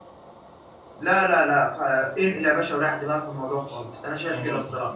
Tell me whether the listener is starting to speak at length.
Yes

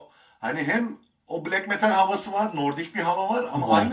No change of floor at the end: Yes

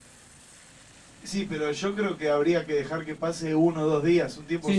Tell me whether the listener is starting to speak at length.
Yes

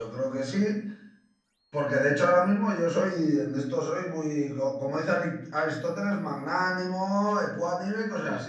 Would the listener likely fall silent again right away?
Yes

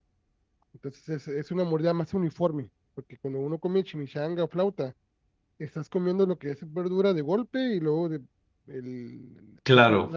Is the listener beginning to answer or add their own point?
No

